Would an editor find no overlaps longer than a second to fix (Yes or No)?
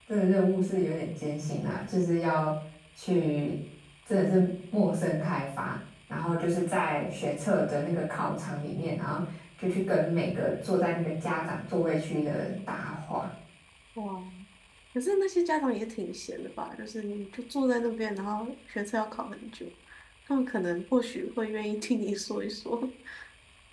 Yes